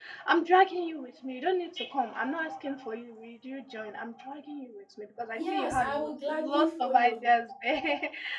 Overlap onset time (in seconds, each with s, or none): 5.3 s